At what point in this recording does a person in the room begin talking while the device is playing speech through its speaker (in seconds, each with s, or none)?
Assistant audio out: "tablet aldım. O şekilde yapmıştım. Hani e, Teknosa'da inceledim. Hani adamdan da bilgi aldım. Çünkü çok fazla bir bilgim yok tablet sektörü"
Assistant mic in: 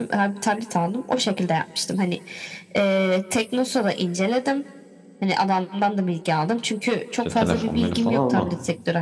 7.2 s